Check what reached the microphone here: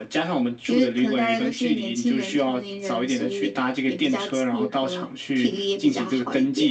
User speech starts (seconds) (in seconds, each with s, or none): none